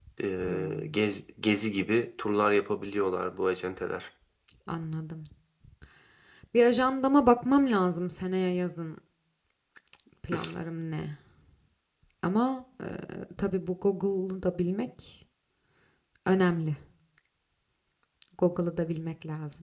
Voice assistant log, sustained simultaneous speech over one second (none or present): none